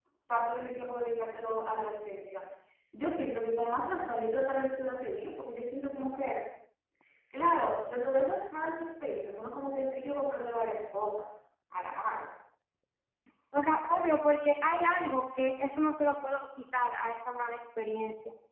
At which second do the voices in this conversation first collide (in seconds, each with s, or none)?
none